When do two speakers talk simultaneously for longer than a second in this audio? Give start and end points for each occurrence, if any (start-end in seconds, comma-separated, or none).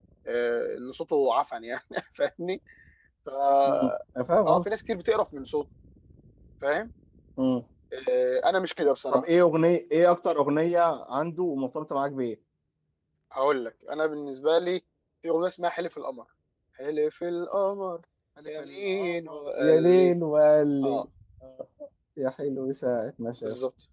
18.6-20.1